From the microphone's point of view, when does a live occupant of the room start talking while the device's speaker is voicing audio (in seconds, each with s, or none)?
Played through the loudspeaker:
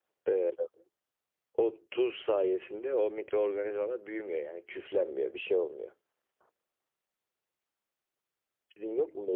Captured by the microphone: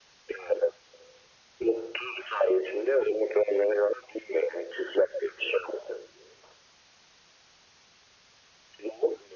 none